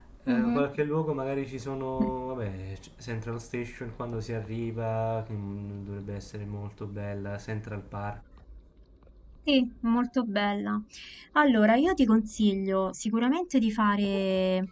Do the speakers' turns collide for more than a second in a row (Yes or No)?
No